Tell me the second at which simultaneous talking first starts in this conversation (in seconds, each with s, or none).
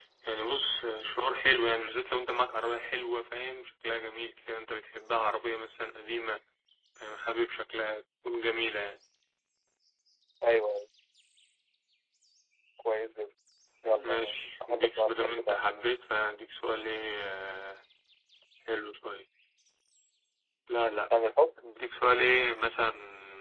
13.8 s